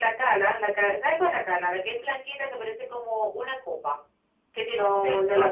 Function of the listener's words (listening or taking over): taking over